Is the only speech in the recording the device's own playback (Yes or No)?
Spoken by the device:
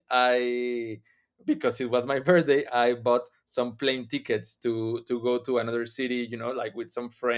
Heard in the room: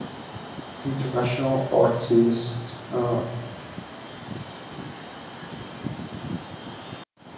No